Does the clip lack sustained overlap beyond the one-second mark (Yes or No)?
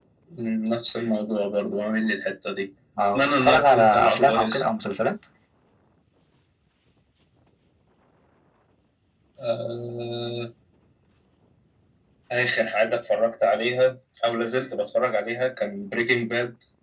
No